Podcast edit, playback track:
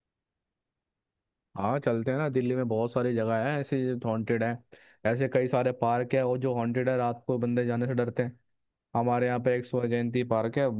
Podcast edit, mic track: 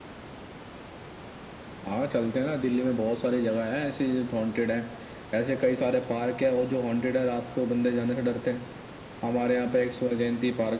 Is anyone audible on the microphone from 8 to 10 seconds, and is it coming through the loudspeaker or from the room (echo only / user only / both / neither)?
echo only